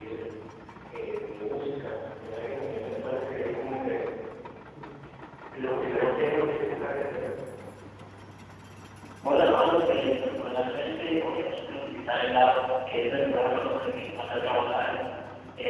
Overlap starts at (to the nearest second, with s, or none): none